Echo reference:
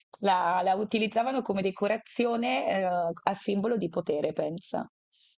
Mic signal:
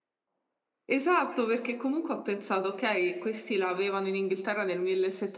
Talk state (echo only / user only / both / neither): user only